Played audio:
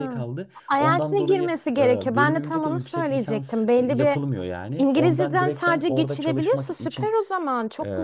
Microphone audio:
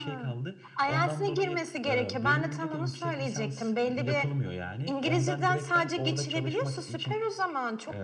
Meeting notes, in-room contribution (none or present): none